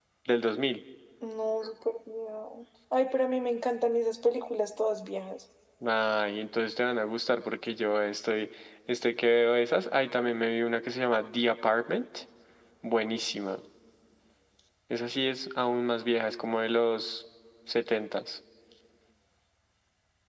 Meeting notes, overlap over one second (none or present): none